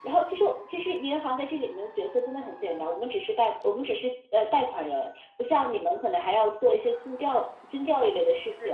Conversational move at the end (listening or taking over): listening